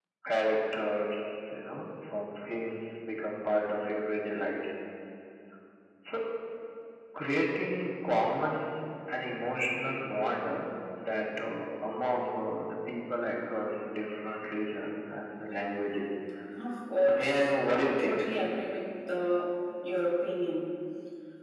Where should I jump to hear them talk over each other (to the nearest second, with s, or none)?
17 s